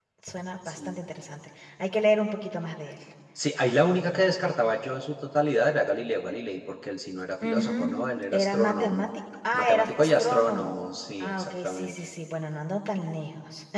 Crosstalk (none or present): present